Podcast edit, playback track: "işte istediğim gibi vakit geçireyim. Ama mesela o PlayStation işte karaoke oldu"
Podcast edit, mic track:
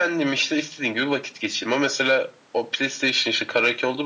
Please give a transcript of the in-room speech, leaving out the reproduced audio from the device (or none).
none